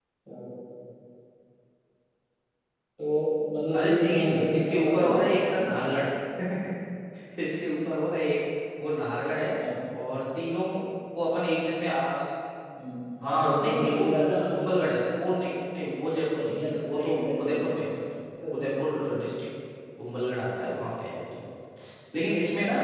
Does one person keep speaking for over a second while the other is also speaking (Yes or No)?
Yes